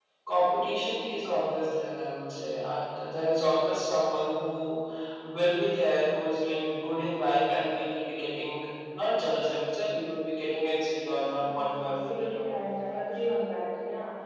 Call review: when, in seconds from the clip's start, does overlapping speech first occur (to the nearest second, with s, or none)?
11 s